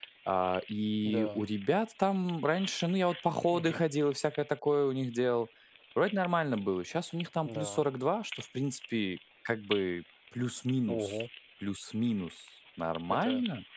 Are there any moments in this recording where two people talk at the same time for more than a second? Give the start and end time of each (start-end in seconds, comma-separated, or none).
none